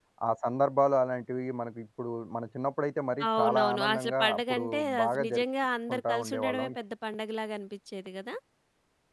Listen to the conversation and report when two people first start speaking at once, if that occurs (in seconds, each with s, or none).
3.2 s